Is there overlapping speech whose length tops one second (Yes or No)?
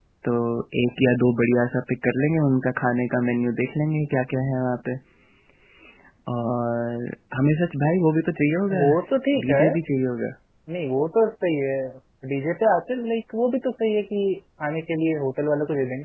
No